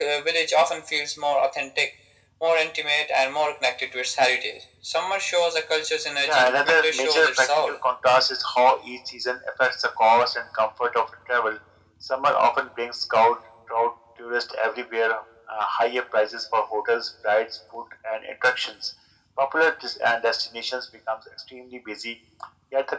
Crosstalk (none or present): present